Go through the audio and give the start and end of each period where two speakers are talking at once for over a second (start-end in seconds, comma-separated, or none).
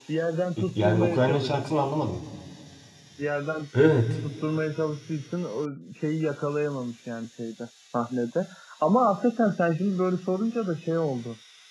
0.6-1.8